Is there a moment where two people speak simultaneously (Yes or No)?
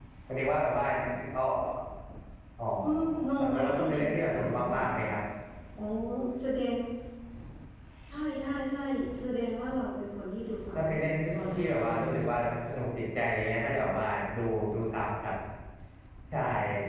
Yes